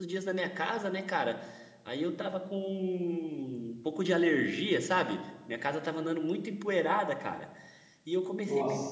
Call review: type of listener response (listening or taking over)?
listening